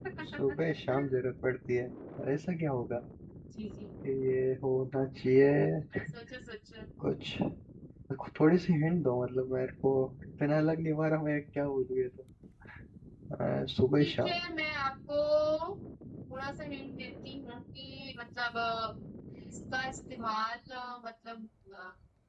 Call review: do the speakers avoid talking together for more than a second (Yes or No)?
Yes